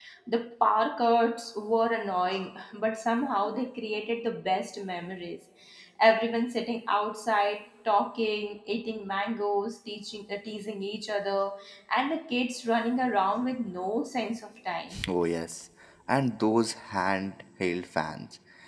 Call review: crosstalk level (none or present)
none